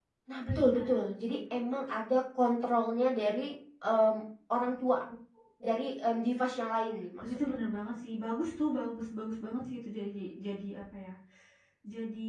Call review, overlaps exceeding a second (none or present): none